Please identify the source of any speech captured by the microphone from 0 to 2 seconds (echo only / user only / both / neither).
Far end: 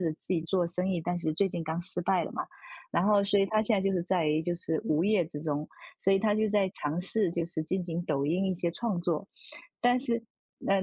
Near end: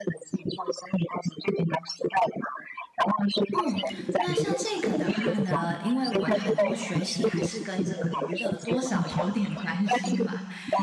echo only